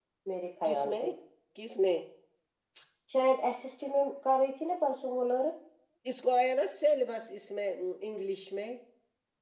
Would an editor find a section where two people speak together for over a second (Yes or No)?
No